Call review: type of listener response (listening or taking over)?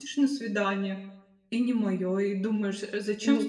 taking over